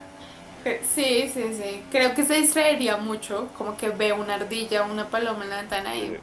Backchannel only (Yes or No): Yes